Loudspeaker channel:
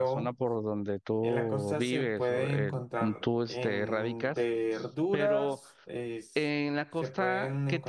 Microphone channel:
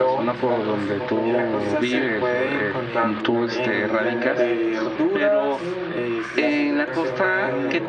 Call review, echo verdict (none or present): present